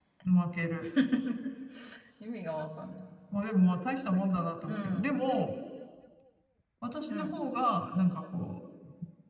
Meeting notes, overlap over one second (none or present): none